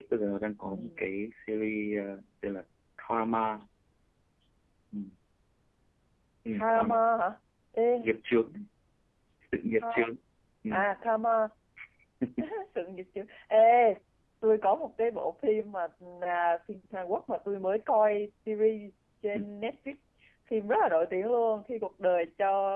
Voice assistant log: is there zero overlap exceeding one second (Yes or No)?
Yes